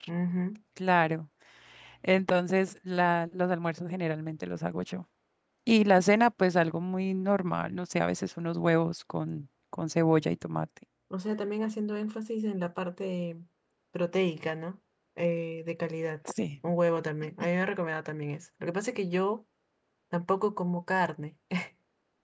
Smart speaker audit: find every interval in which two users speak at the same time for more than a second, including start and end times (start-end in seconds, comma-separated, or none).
none